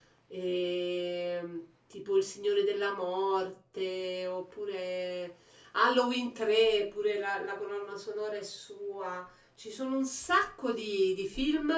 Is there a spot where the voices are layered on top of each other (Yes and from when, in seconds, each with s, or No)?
No